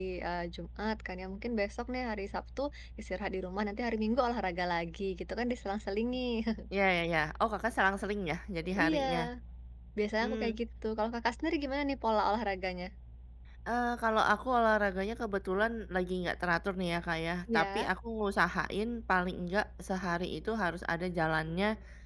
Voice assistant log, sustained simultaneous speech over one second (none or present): none